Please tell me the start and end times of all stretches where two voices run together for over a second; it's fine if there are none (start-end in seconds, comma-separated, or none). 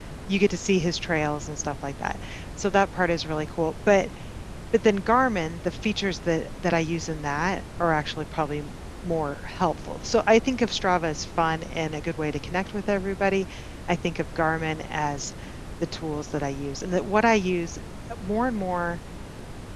none